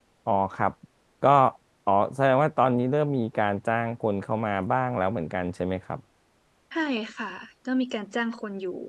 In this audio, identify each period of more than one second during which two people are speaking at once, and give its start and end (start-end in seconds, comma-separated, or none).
none